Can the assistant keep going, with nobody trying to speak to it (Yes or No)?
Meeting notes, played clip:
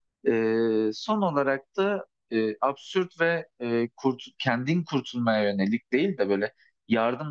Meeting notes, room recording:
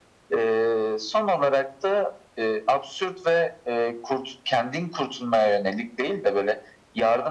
Yes